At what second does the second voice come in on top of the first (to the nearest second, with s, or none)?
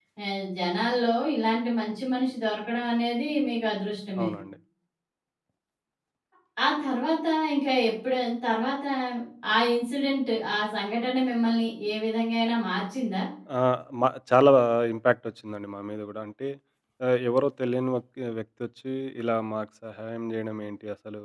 none